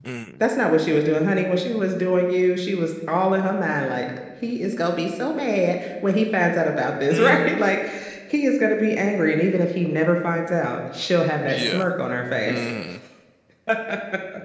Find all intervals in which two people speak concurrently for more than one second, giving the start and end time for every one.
none

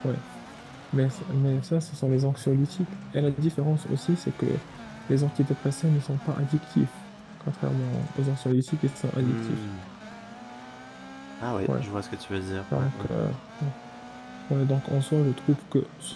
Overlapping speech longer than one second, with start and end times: none

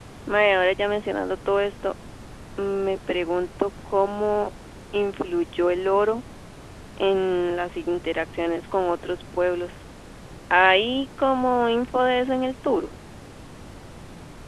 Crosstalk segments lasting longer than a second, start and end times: none

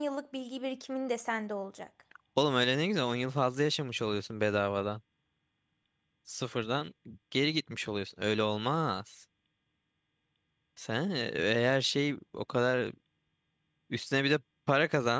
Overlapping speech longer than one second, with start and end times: none

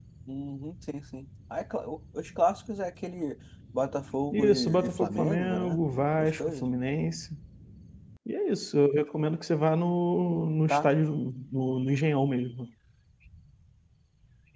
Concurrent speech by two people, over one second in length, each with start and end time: 4.3-5.8

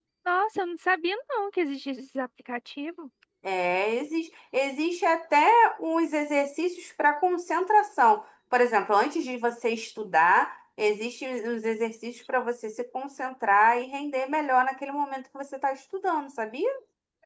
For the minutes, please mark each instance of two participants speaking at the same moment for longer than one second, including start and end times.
none

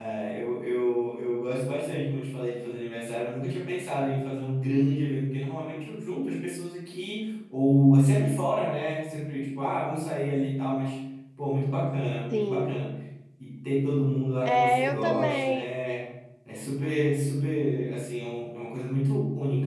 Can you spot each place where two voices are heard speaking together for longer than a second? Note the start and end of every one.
14.4-15.7

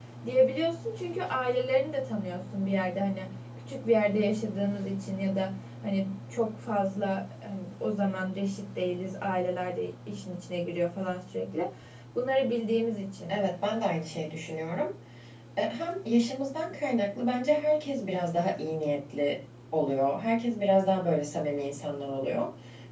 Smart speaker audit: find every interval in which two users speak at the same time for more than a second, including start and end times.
none

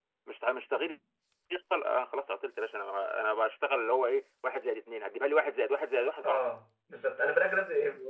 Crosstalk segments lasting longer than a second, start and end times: none

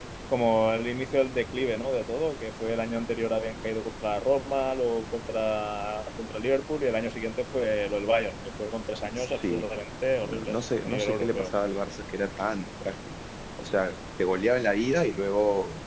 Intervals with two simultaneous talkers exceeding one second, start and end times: 10.2-11.5

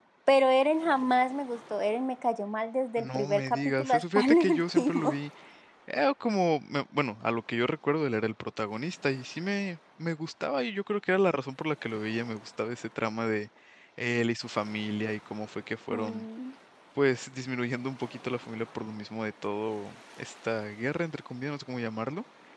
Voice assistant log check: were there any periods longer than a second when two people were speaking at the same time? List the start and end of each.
3.0-5.2

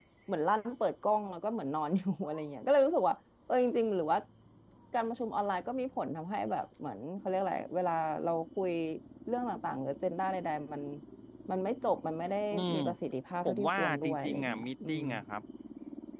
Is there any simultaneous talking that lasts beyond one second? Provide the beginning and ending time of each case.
13.4-15.0

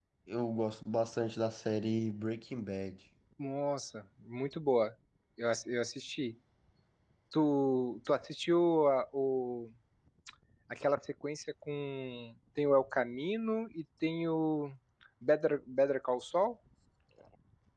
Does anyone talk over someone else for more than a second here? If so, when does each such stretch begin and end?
none

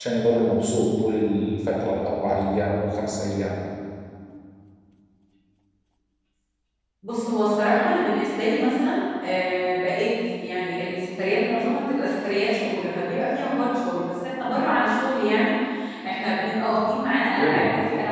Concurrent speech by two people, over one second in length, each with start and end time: none

